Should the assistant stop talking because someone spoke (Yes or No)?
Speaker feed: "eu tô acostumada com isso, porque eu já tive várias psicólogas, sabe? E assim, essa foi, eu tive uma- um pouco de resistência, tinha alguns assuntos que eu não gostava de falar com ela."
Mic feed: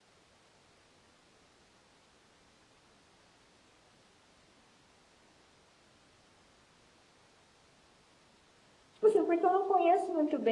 Yes